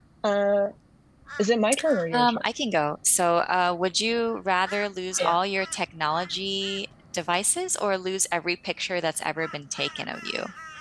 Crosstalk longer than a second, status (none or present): none